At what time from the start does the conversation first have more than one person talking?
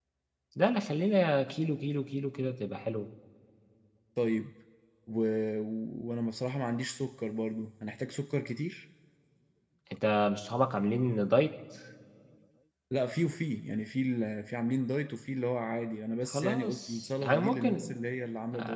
16.3 s

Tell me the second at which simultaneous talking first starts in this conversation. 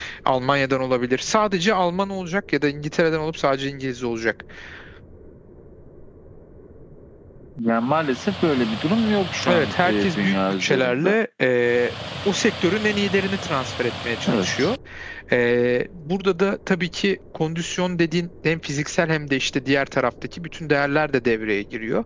9.5 s

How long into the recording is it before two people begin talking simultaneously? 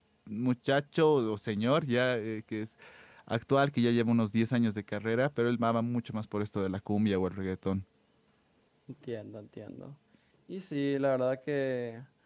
none

